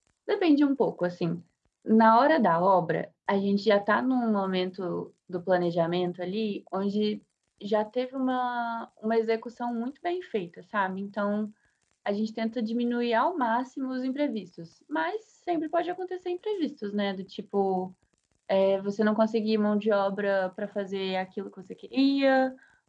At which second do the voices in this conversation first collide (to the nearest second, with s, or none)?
none